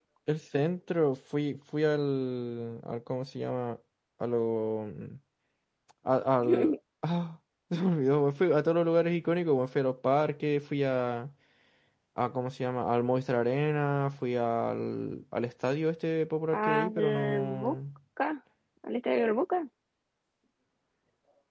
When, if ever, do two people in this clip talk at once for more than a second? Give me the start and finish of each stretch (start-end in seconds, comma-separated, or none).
16.5-17.8